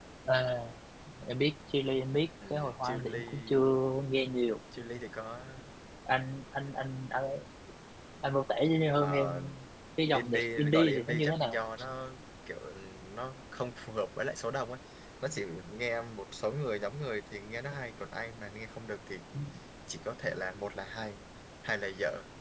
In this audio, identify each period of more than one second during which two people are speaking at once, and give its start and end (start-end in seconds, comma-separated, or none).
2.5-3.7, 10.1-11.6